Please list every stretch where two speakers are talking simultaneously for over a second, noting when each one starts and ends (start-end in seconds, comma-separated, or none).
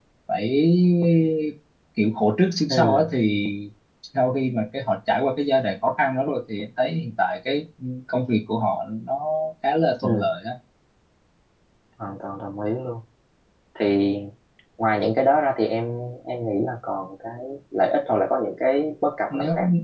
none